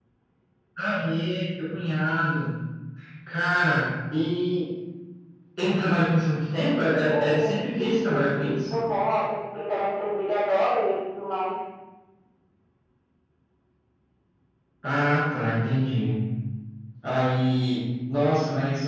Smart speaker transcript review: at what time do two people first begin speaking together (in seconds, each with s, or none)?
6.8 s